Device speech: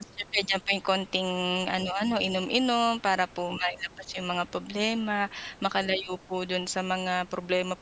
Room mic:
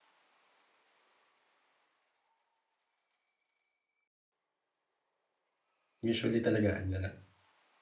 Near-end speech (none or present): present